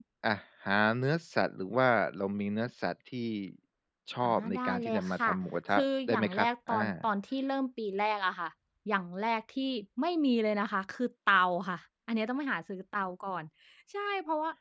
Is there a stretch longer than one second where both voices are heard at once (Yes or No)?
Yes